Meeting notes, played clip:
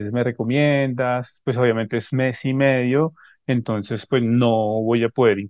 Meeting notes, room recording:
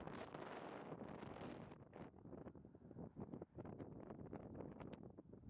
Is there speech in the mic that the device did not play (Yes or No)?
No